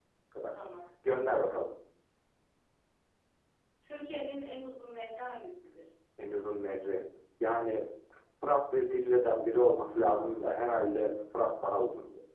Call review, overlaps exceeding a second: none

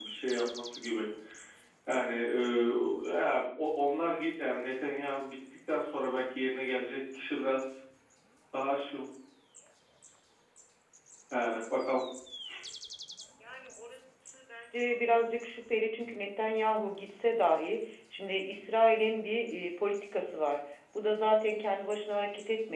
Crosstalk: none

